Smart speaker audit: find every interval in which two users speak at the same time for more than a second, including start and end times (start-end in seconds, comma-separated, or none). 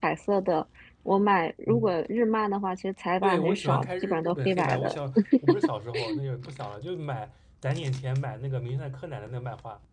3.2-5.0